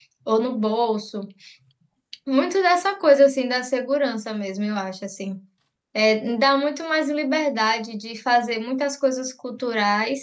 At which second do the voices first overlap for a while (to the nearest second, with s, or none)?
none